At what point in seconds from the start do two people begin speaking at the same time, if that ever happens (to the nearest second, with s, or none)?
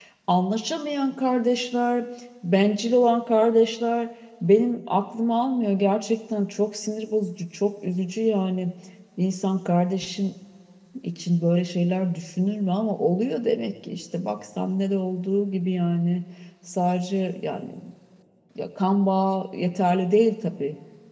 none